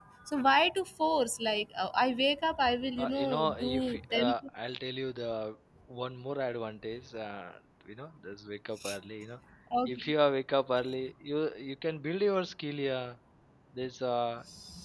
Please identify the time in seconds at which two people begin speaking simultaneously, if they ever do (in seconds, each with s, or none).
3.0 s